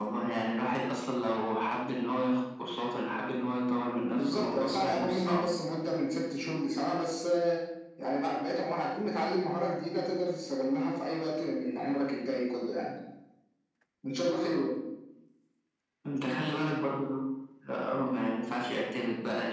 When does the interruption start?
4.2 s

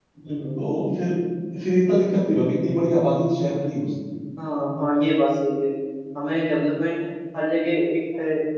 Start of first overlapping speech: none

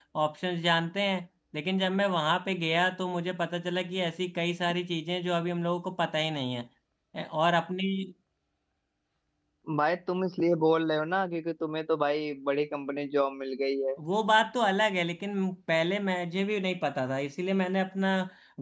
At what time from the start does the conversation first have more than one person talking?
none

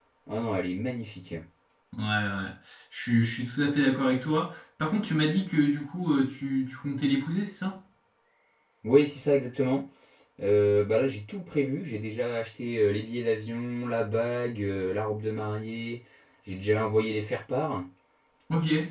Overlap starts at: none

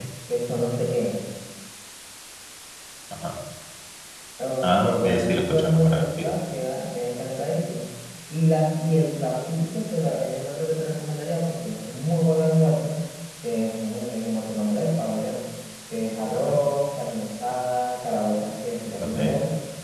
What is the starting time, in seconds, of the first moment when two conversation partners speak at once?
4.6 s

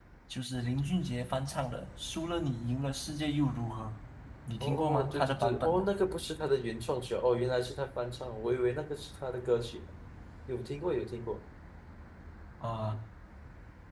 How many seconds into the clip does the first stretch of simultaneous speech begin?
4.6 s

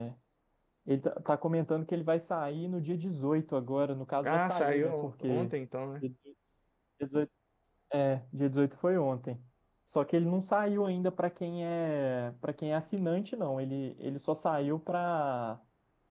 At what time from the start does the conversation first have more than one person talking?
4.2 s

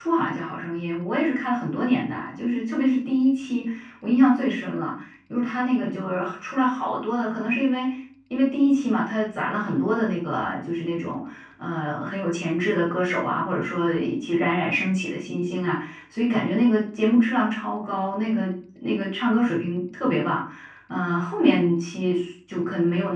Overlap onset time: none

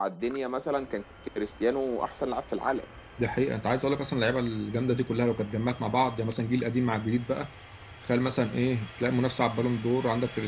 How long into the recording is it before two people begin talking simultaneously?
none

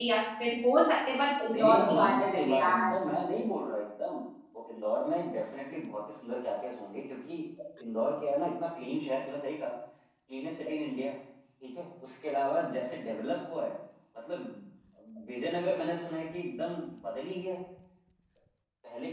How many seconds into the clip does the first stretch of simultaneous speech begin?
1.5 s

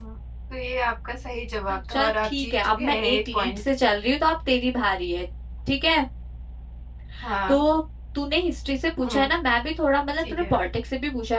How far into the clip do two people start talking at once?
1.9 s

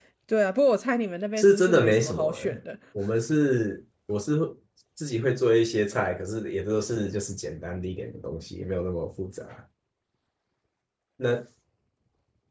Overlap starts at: 1.4 s

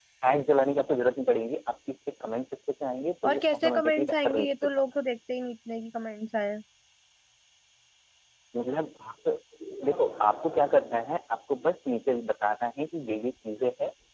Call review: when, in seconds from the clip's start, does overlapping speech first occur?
3.2 s

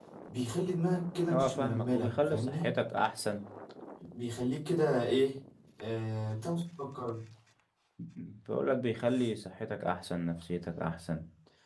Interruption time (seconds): 1.3 s

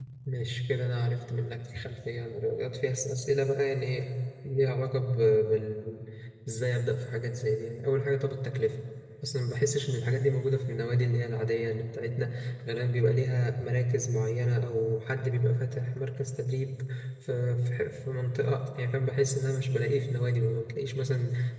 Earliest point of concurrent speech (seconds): none

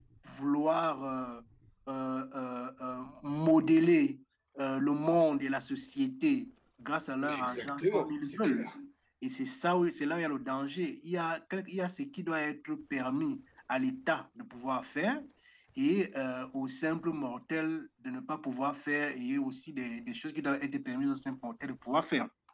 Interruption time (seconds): 7.2 s

